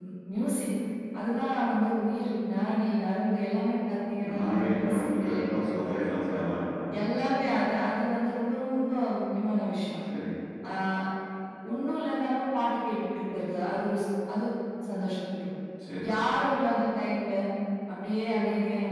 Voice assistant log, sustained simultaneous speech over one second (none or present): present